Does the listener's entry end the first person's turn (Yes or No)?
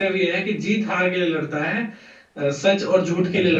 No